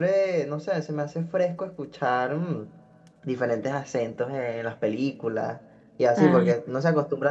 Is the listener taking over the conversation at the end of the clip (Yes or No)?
No